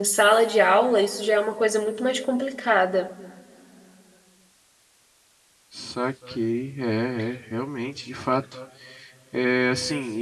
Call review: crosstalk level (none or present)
none